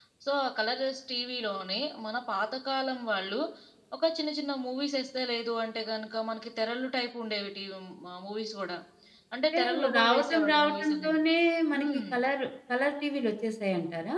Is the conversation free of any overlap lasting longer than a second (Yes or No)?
No